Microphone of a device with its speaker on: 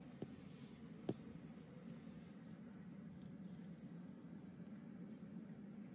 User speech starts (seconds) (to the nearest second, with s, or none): none